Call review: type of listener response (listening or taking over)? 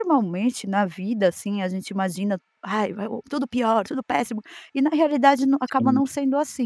listening